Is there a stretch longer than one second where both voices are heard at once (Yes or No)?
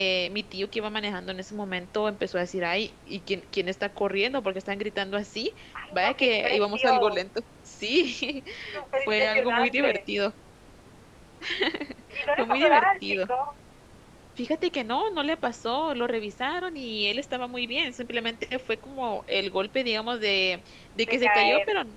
Yes